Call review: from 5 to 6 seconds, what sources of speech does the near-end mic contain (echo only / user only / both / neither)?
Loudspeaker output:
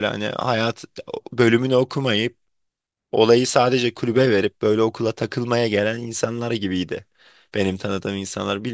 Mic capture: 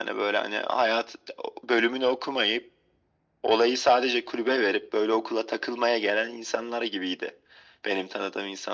echo only